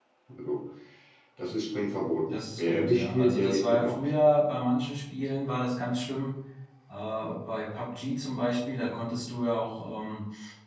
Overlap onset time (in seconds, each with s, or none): 2.3 s